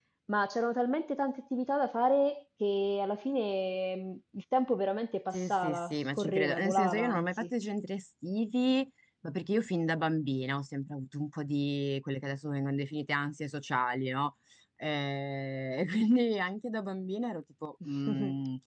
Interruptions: present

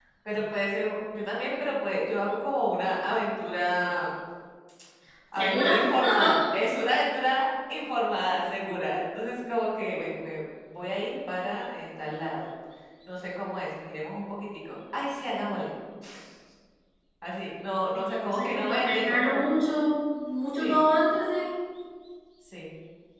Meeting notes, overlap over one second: present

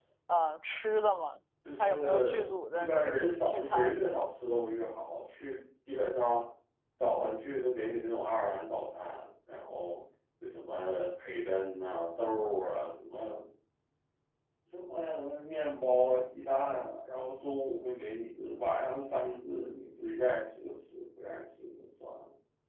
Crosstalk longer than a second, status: present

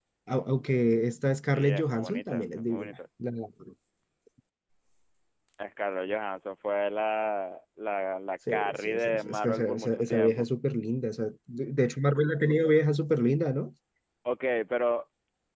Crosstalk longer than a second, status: present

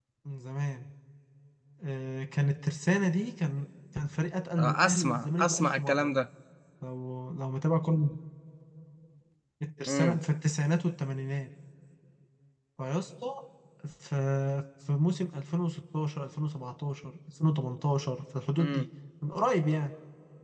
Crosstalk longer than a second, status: present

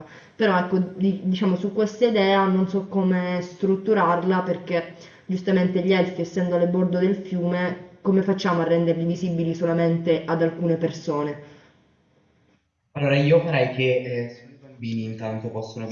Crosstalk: none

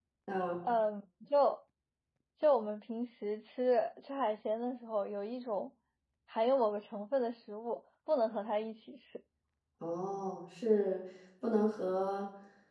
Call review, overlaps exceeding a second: none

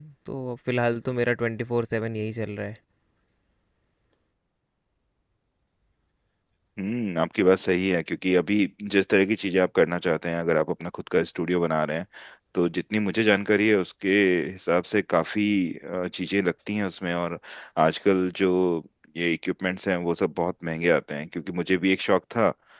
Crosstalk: none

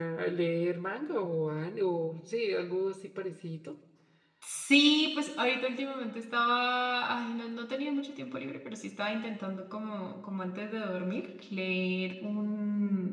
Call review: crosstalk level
none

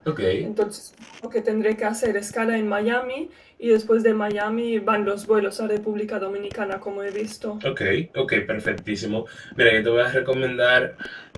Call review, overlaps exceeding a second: none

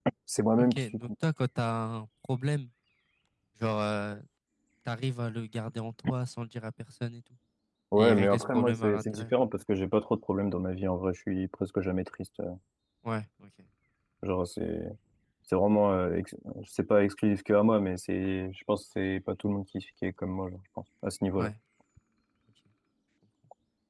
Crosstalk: present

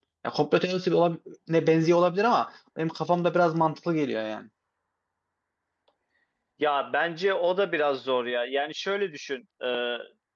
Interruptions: none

